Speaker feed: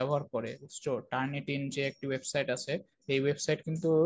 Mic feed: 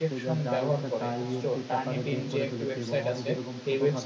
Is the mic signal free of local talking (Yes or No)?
No